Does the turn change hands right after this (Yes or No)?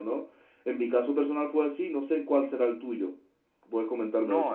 Yes